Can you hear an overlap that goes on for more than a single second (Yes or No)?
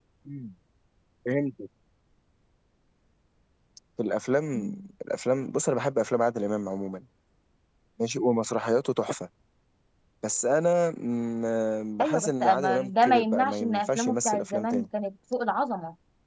Yes